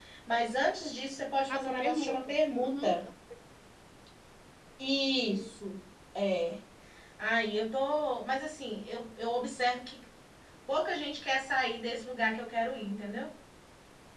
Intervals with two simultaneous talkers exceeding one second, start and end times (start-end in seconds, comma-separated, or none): 1.5-3.0